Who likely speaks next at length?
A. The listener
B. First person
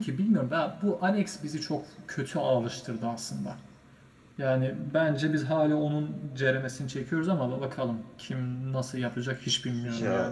A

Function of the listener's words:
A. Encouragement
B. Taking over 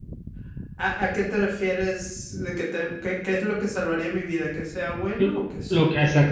B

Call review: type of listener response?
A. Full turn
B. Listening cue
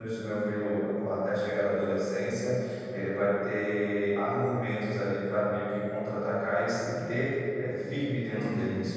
A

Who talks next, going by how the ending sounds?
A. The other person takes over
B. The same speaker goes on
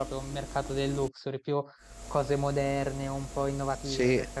A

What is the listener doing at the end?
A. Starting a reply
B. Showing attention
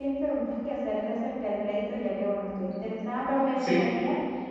B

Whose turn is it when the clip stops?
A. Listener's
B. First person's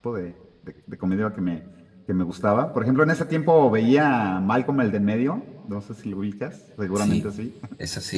A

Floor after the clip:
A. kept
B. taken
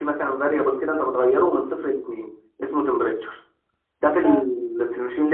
A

